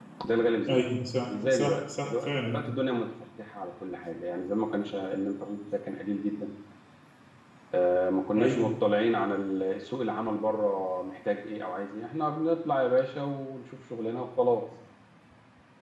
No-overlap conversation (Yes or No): No